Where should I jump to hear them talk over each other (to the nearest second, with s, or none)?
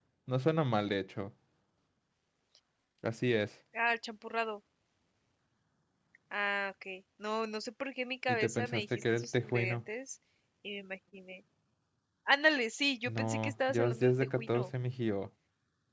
8 s